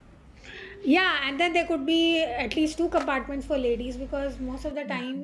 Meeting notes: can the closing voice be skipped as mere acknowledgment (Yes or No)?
Yes